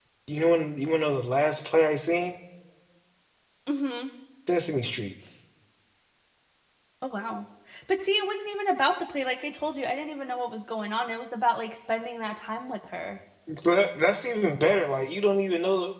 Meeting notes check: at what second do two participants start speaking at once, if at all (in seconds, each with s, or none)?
none